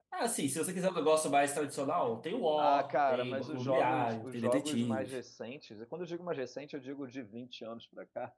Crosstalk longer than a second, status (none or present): present